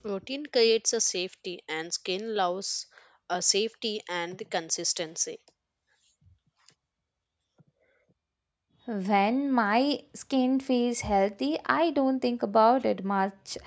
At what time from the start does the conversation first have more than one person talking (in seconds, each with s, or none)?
none